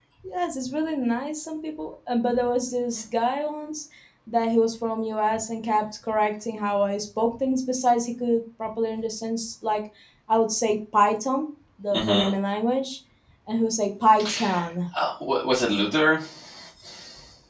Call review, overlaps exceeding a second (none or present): none